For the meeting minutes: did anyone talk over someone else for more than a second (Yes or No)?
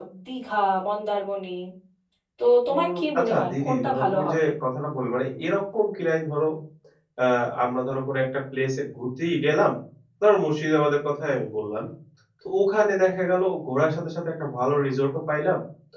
Yes